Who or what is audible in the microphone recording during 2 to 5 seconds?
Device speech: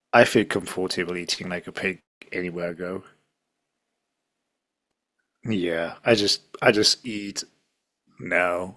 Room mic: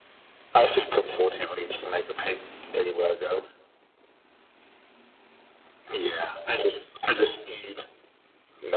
echo only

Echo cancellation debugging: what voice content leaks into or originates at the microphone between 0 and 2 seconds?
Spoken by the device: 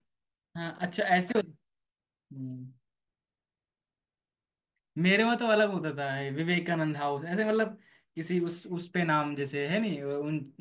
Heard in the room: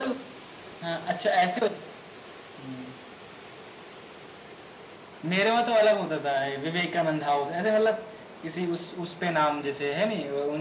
echo only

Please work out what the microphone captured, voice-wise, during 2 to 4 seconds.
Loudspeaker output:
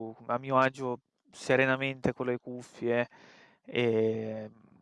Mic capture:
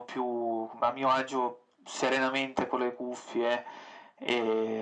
echo only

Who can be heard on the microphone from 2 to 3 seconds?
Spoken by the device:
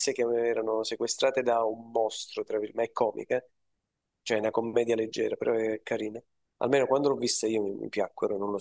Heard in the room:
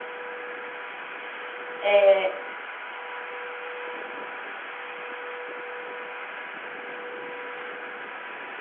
user only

